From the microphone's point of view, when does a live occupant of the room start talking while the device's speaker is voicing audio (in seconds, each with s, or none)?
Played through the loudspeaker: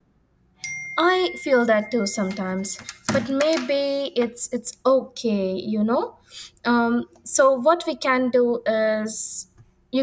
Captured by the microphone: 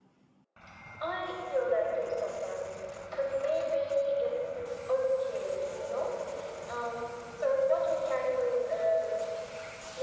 none